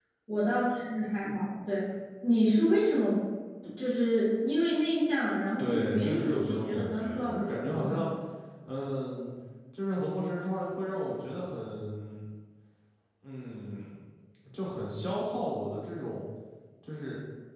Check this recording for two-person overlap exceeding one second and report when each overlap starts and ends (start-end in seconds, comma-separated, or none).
5.6-8.0